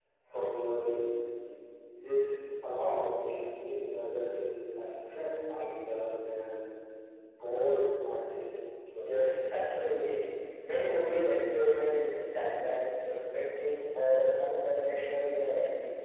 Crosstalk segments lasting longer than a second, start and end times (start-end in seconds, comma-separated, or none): none